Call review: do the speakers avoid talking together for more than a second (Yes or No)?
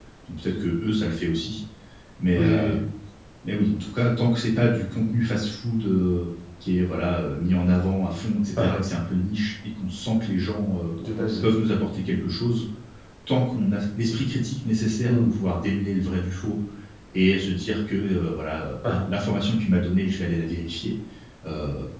Yes